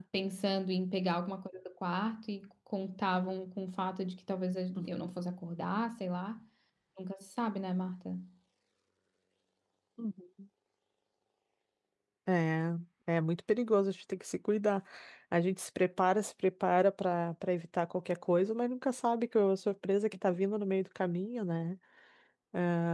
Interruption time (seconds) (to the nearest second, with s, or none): none